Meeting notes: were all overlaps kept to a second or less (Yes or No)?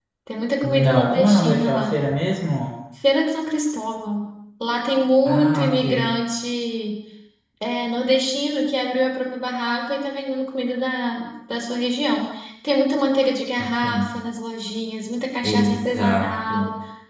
No